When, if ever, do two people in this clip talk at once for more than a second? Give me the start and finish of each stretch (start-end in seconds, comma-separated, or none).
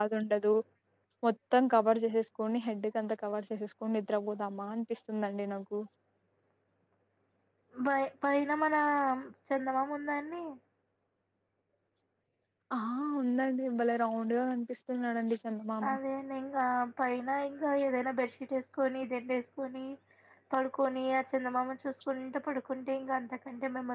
none